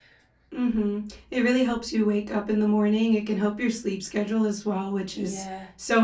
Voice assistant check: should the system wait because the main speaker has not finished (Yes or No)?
Yes